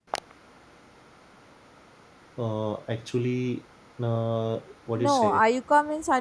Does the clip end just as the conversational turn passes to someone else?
Yes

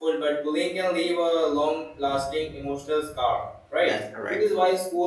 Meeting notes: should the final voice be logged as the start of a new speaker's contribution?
No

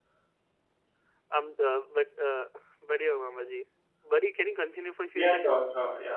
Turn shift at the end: Yes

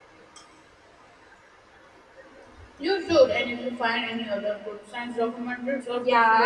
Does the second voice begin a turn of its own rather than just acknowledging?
Yes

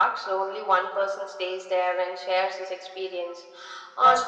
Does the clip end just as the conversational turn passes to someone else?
No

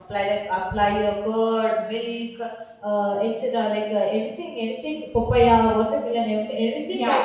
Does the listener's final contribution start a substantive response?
Yes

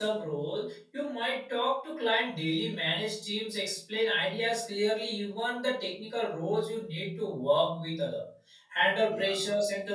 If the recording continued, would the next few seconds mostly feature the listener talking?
No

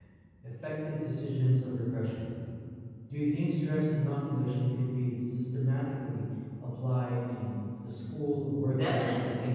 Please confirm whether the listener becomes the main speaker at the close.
Yes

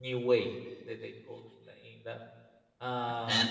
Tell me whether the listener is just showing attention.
Yes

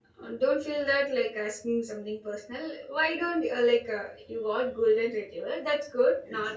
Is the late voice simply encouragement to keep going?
Yes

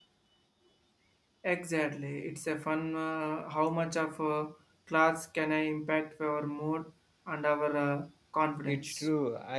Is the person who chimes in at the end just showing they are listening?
No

